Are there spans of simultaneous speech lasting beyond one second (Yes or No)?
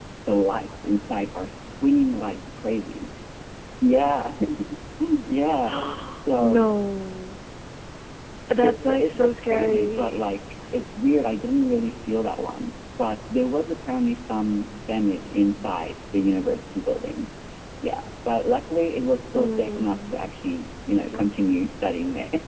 Yes